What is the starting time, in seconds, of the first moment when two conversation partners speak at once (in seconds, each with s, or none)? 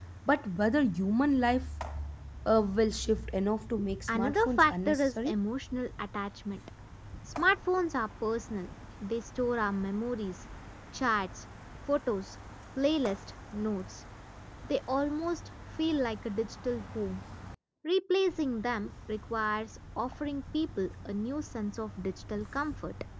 4.1 s